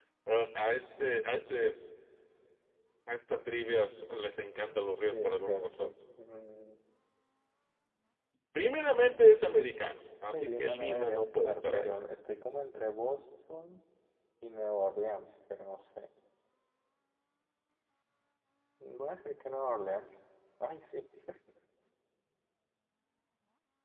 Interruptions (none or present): present